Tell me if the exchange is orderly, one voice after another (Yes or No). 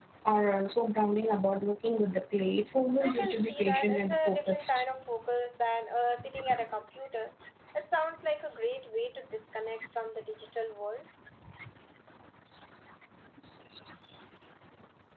No